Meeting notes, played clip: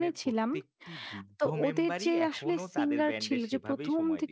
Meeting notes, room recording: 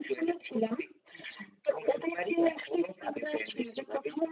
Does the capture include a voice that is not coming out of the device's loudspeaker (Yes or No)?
No